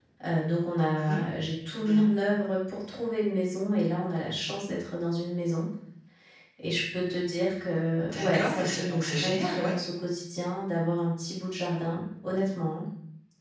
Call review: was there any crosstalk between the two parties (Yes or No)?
Yes